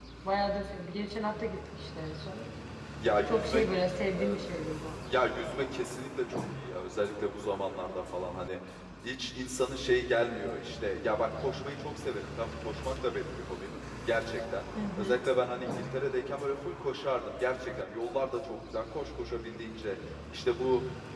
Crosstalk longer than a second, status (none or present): none